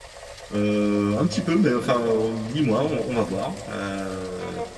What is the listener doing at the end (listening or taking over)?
taking over